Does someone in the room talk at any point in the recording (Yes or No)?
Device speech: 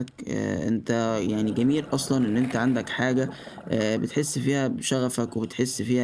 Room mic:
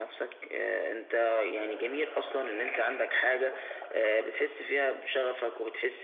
No